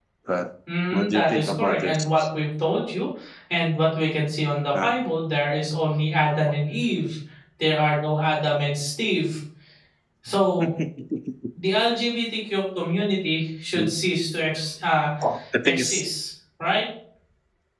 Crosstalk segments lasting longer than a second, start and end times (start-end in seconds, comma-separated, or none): 0.9-2.2